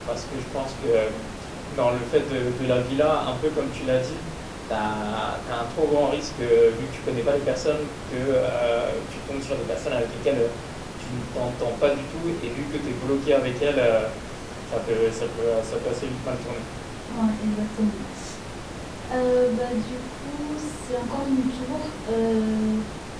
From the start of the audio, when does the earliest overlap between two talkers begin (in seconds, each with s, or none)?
none